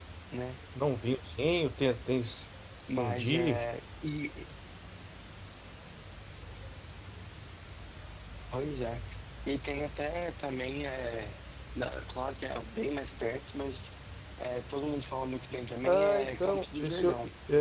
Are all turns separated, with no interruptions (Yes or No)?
No